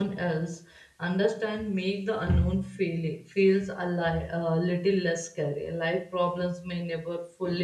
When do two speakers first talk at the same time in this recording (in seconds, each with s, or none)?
none